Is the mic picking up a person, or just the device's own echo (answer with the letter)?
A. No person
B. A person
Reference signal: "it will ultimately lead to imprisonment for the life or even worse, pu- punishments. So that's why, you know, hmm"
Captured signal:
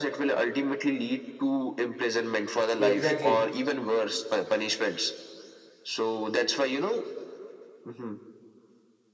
B